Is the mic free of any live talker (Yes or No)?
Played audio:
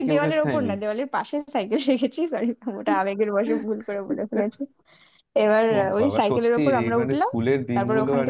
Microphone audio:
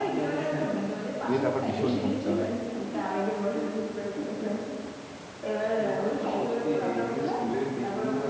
No